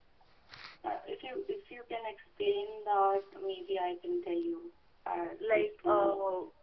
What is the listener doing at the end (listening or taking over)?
taking over